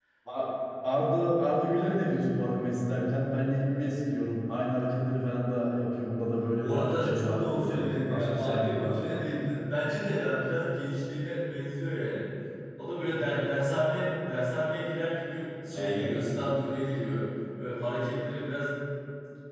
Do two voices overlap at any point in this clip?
Yes, from 6.6 s

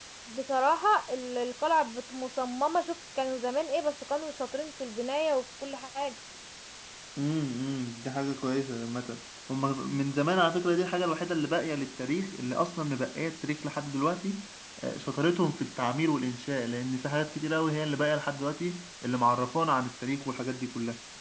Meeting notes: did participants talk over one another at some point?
No

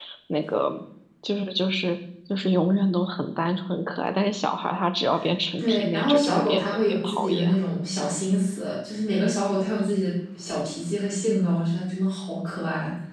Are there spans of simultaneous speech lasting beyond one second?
Yes, from 5.6 s

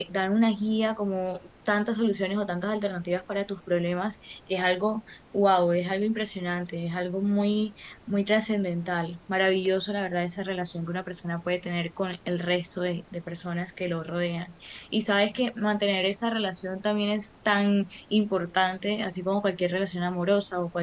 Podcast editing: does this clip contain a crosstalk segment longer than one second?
No

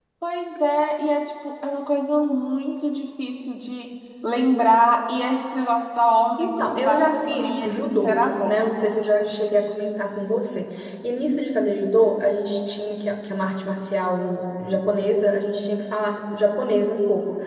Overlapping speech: Yes, from 6.4 s

